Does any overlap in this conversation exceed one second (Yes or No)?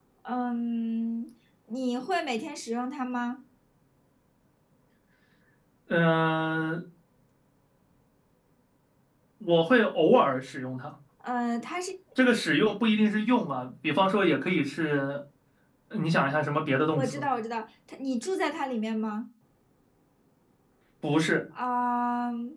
No